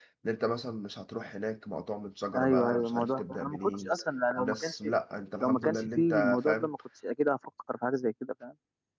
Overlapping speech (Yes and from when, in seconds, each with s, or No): Yes, from 2.4 s